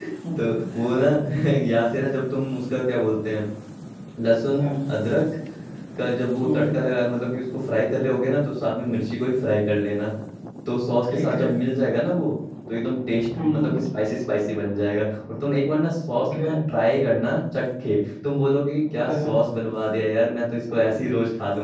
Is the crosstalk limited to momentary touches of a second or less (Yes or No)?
Yes